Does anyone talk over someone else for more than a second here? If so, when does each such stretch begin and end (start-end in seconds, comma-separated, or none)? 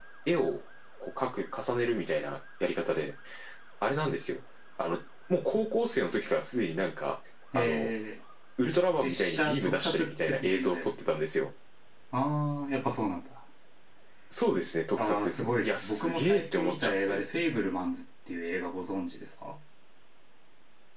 8.9-10.9, 14.9-17.2